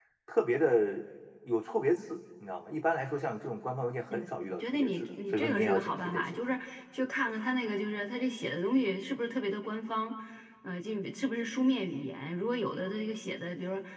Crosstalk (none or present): present